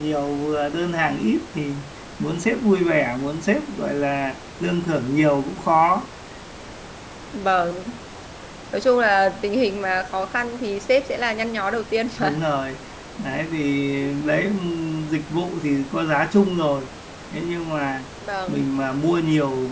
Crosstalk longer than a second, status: none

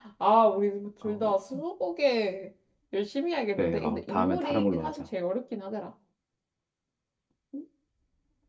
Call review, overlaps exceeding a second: present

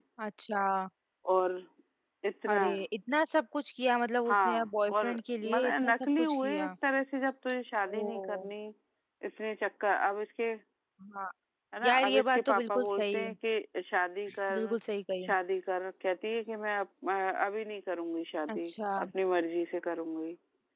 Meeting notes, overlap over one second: present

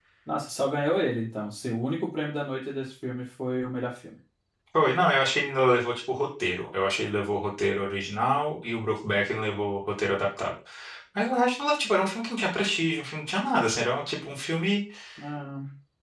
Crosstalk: none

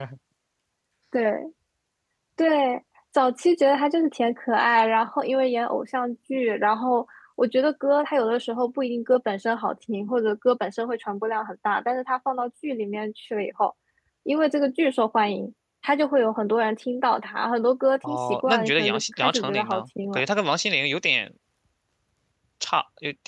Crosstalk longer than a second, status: present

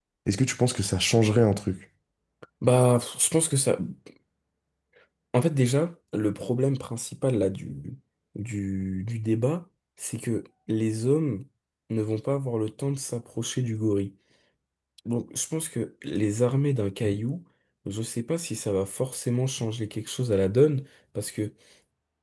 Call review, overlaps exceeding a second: none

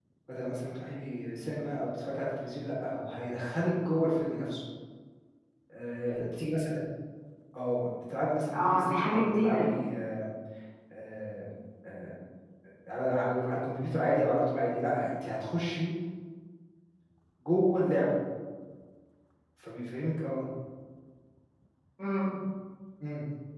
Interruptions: present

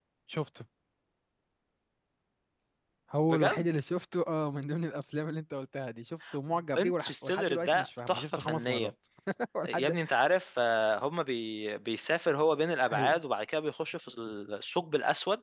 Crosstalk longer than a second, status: present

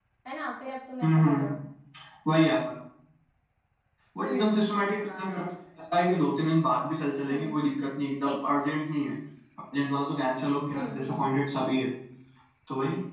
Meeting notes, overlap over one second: none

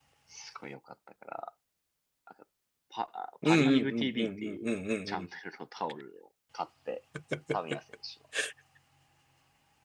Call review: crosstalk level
present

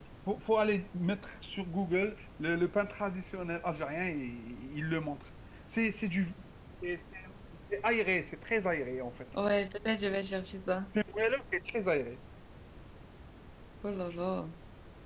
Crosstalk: none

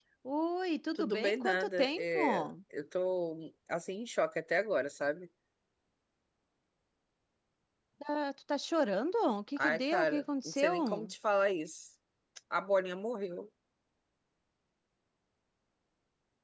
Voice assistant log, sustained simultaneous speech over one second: present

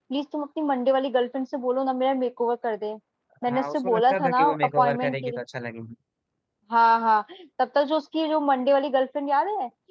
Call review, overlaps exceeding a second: present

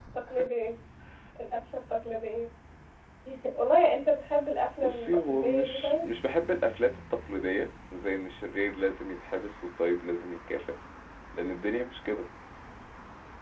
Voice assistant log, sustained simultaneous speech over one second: present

